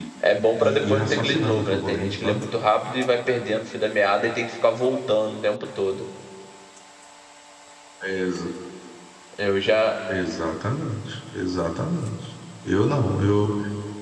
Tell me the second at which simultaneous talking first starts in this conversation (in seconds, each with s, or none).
0.6 s